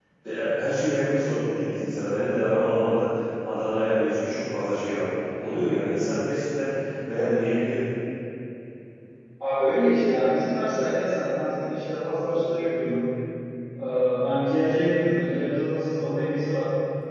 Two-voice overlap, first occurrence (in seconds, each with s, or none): none